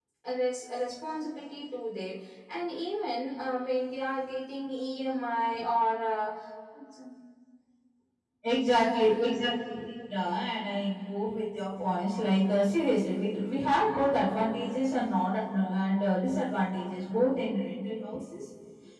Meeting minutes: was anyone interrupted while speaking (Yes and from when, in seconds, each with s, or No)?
No